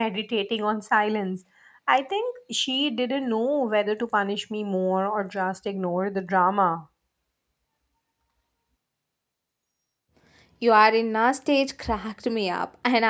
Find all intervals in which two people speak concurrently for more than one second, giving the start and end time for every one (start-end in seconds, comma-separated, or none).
none